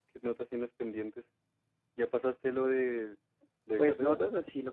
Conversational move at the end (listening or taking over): taking over